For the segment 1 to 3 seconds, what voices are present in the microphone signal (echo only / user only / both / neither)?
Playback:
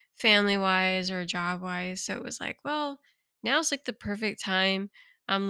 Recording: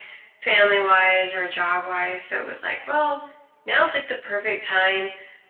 echo only